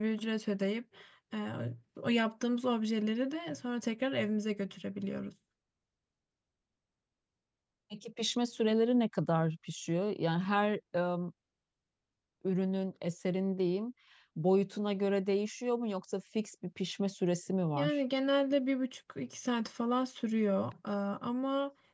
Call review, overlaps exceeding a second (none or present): none